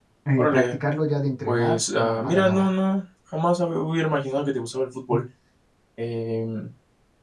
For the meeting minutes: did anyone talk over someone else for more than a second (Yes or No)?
Yes